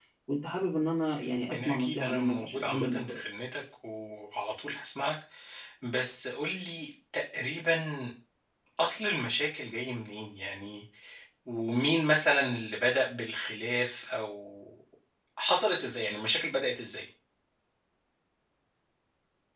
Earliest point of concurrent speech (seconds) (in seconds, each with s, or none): 1.5 s